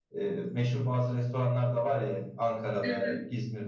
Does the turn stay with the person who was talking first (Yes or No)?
Yes